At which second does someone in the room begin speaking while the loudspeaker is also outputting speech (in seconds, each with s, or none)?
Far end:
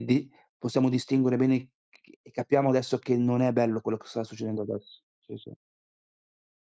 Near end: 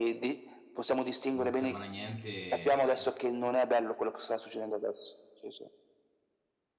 1.3 s